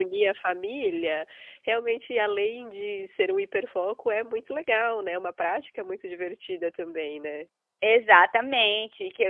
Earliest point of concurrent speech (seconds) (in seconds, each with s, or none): none